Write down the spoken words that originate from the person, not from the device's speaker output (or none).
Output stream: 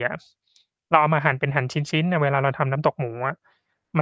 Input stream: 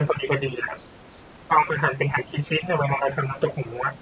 none